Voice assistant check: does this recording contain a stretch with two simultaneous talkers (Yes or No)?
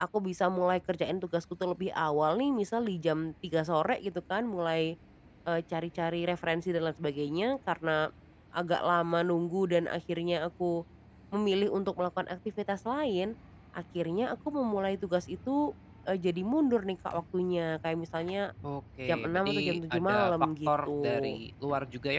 Yes